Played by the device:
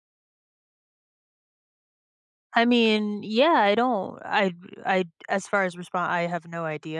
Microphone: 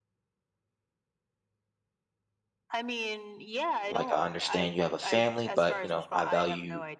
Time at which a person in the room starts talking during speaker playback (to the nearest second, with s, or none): 4 s